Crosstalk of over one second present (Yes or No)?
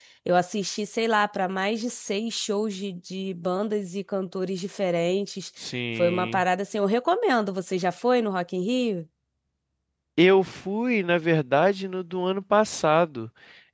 No